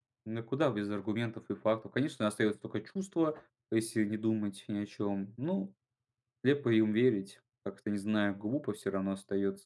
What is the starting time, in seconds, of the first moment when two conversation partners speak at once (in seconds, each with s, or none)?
none